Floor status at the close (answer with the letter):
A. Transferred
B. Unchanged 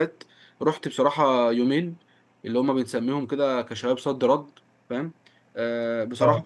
B